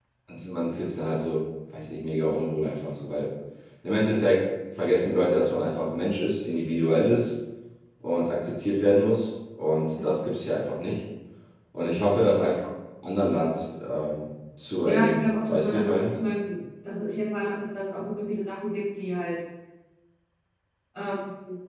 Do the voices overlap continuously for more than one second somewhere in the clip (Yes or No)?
Yes